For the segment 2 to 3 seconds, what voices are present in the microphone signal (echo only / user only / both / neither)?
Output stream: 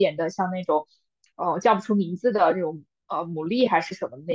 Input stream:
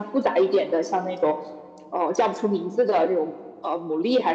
echo only